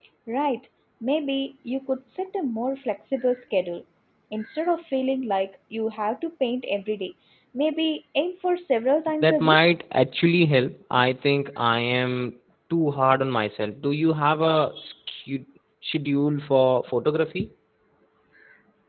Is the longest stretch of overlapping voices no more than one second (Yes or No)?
Yes